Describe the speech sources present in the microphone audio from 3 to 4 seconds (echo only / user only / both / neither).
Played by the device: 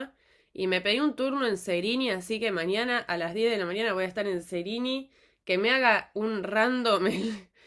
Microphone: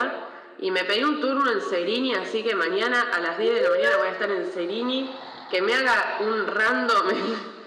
both